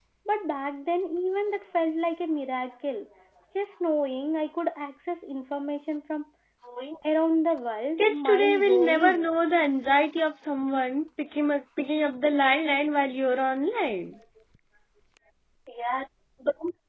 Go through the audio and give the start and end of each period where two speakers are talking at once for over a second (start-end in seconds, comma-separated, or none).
8.0-9.3